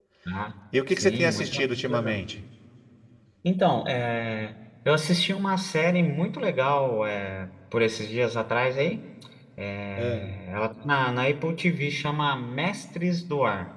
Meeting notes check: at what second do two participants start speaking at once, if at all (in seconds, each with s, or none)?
0.9 s